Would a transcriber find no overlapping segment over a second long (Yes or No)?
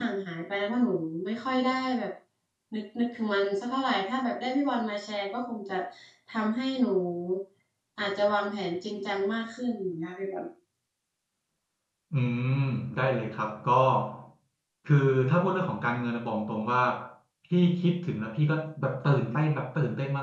Yes